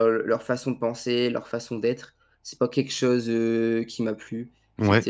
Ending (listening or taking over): listening